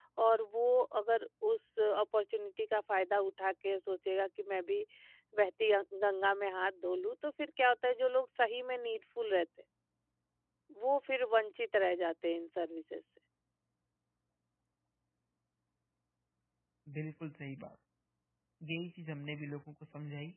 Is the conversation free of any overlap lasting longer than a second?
Yes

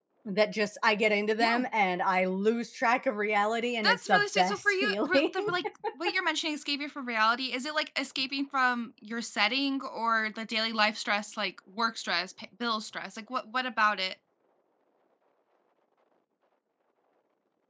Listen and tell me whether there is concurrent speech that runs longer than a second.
Yes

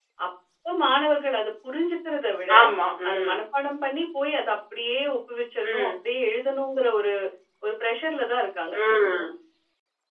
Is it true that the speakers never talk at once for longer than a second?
Yes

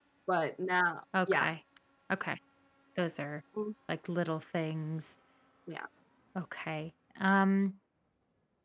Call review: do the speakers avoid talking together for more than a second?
Yes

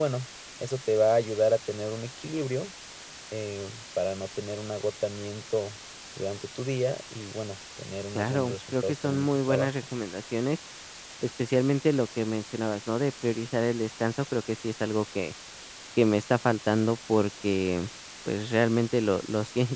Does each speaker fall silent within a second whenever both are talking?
No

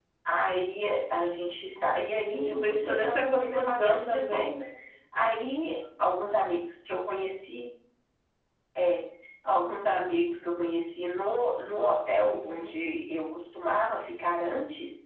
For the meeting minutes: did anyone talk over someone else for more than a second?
Yes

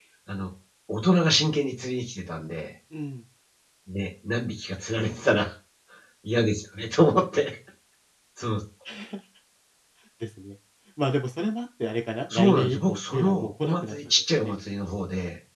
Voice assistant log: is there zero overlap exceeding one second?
No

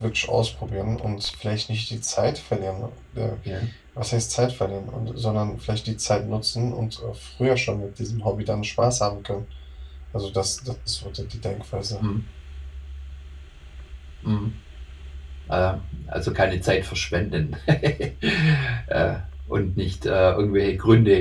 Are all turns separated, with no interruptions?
Yes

